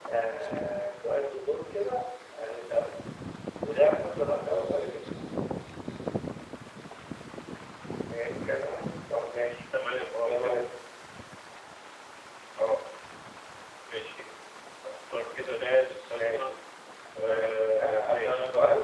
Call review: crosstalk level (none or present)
present